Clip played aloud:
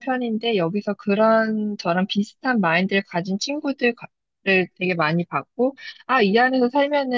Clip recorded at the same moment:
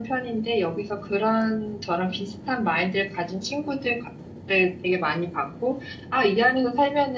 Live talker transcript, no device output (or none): none